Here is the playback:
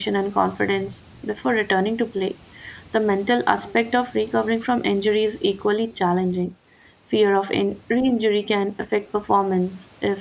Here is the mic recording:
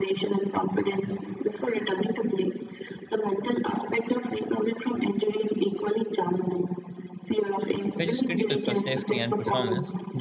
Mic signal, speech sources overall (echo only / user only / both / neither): both